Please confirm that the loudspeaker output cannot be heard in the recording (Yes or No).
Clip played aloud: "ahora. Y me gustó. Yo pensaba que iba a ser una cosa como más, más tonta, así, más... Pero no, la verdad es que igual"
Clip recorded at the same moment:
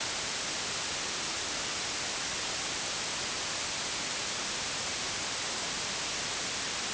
Yes